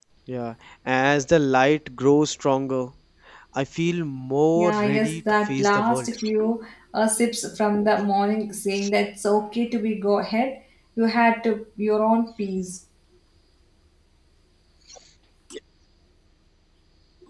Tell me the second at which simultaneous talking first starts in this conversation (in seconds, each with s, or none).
4.6 s